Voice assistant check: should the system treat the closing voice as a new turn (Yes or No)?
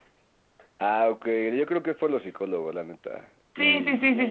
Yes